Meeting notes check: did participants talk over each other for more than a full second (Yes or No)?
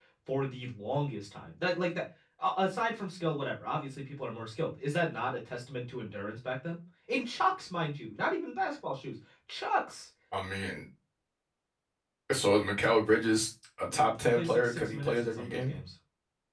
Yes